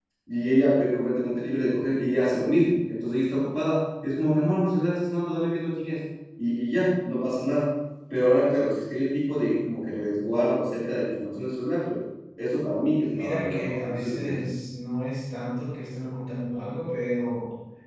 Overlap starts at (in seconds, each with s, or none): 13.1 s